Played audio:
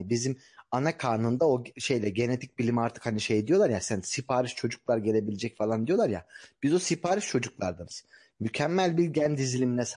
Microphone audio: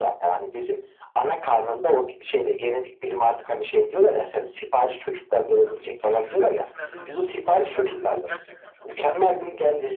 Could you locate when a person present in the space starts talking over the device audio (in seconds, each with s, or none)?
5.6 s